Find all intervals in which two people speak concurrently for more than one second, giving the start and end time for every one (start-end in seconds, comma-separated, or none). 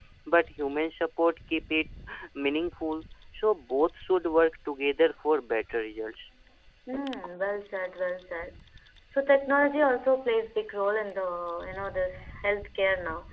none